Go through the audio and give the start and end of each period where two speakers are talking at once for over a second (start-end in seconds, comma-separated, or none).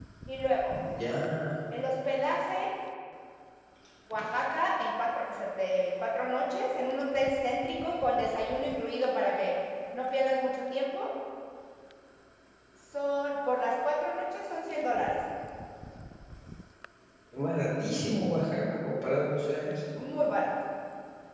none